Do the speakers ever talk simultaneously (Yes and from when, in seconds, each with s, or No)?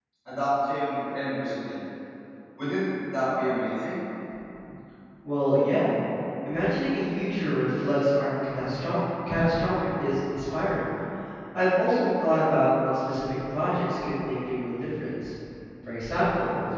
No